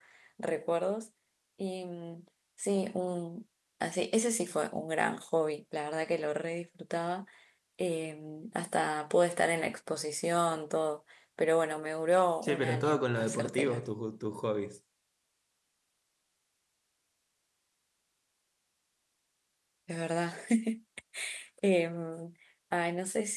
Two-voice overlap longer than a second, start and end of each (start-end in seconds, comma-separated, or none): 12.4-13.8